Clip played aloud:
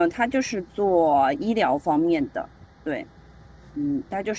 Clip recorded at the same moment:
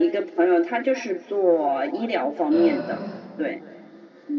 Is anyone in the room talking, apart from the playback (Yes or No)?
Yes